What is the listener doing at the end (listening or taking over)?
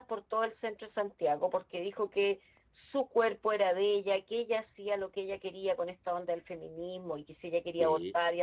listening